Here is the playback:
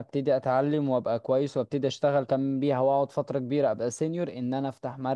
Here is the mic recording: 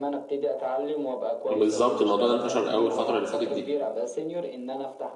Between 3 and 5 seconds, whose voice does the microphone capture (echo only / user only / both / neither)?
both